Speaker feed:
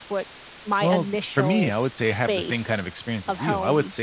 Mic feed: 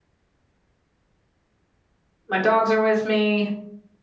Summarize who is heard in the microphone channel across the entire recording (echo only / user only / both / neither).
user only